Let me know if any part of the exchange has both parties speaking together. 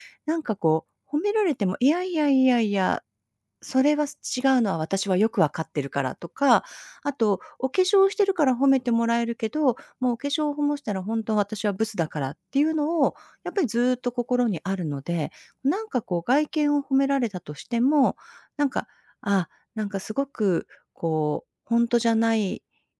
No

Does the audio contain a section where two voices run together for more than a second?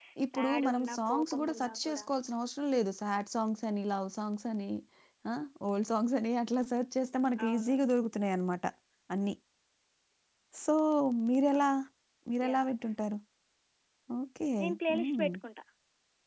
Yes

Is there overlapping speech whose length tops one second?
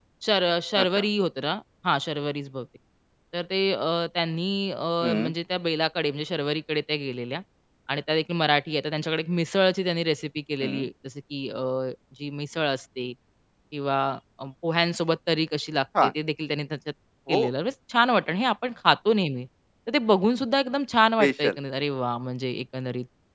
No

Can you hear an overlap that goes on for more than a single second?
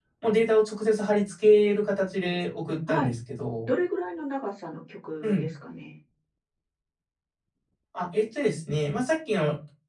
No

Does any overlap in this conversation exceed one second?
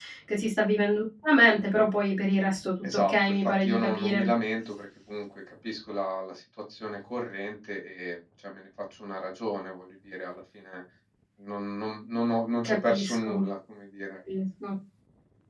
Yes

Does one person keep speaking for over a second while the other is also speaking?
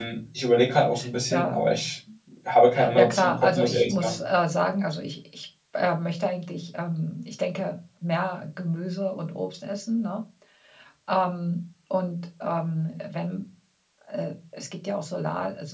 Yes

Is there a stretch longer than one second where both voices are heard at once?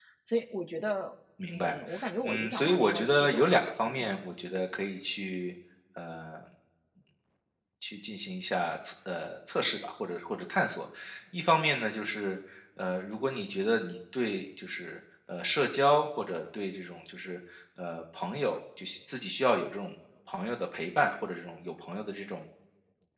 Yes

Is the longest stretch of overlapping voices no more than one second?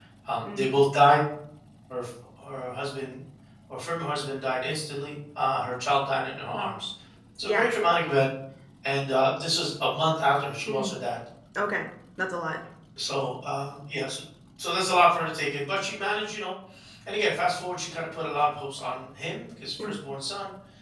Yes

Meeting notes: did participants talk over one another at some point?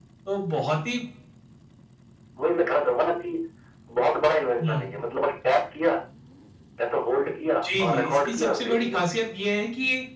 Yes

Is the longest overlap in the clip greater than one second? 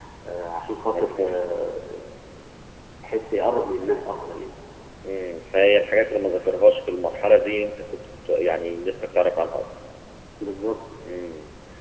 No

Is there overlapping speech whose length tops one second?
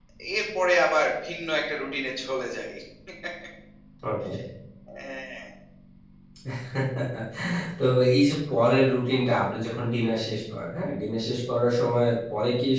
No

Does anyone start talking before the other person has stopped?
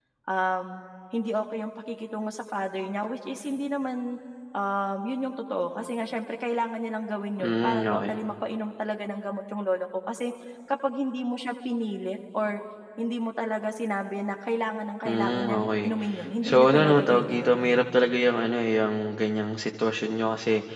Yes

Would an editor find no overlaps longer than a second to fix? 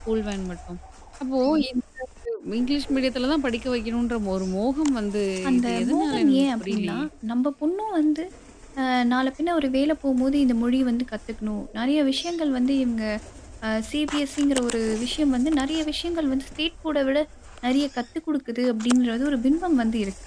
No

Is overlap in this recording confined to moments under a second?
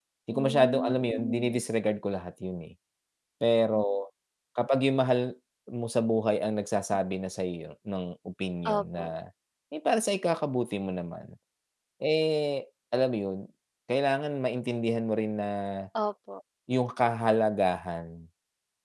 No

